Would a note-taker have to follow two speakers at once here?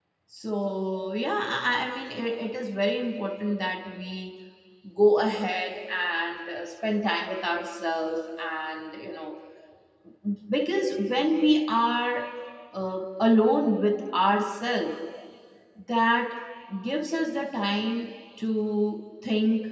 No

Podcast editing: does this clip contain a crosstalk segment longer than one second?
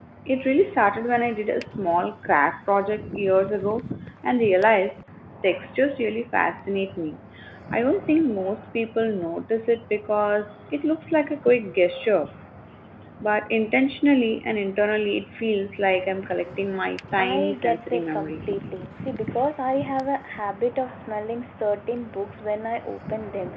Yes, from 17.2 s

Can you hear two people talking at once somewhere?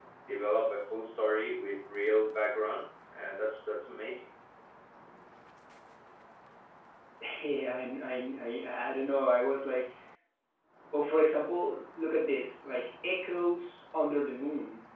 No

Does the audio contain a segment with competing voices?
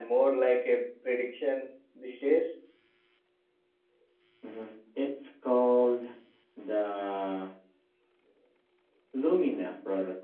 No

